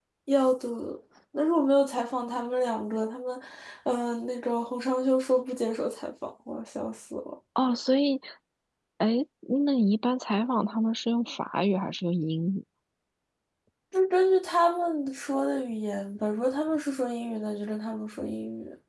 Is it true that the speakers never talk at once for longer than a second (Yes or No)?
Yes